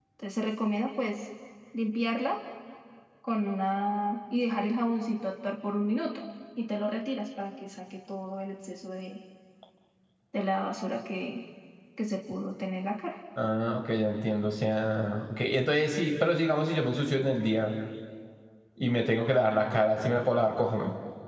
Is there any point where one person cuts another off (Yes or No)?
No